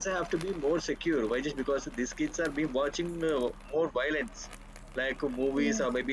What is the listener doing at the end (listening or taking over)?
listening